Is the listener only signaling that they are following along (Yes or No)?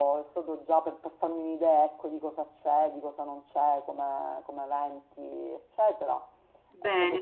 No